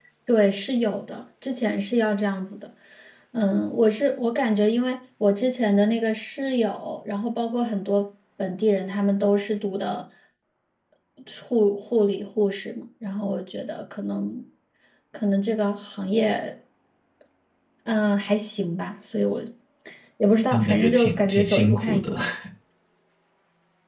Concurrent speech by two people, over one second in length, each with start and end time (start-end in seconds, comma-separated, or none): 20.5-22.1